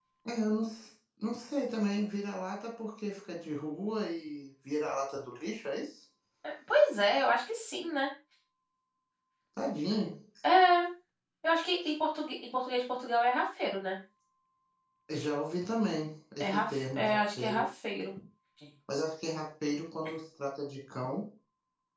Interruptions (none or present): present